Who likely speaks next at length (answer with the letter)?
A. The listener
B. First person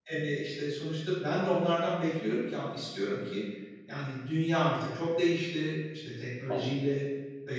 B